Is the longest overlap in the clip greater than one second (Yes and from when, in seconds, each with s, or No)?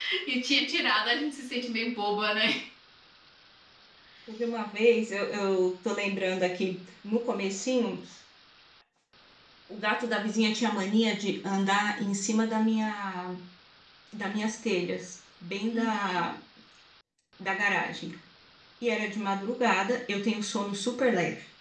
No